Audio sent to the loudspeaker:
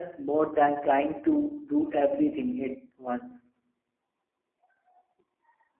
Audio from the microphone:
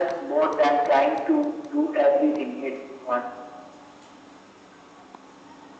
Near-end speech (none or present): none